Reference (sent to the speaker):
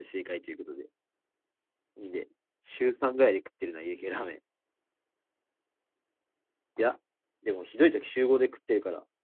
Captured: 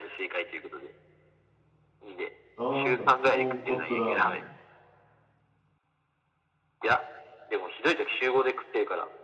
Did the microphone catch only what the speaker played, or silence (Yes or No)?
No